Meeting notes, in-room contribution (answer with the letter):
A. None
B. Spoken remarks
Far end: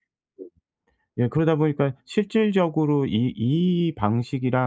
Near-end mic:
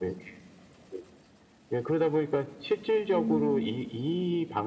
B